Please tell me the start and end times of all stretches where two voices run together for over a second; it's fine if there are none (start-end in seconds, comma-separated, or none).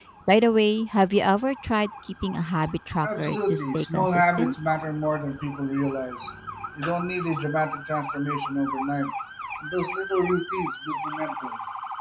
3.0-4.5